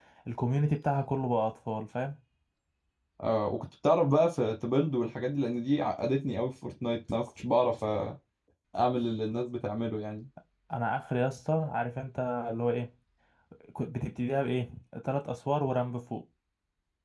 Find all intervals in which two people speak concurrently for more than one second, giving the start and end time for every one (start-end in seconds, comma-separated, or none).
none